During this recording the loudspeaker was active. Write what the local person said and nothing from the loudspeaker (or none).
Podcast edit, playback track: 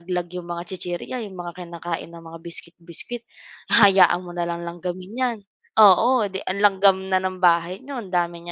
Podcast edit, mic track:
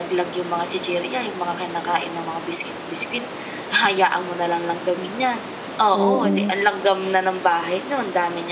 Oo.